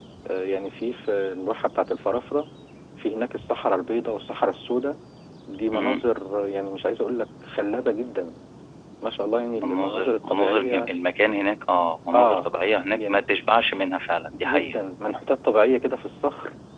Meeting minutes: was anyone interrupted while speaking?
Yes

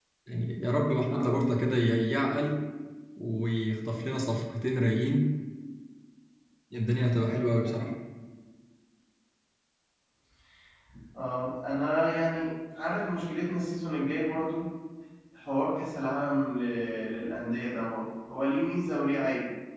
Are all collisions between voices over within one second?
Yes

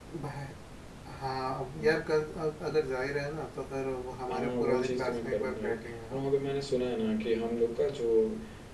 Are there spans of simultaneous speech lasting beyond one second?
Yes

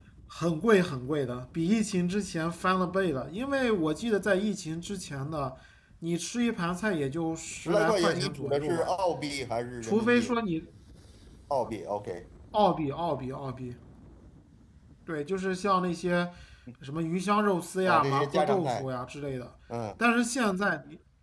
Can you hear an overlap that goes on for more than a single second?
Yes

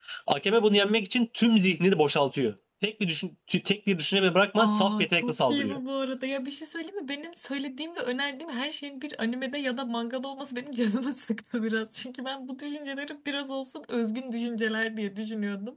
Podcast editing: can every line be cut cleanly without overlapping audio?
No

